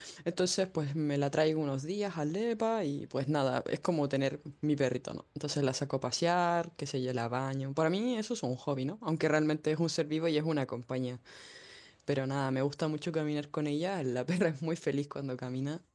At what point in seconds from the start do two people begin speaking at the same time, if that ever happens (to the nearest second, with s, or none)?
none